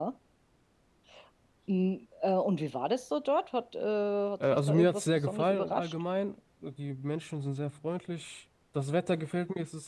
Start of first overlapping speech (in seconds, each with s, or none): 4.4 s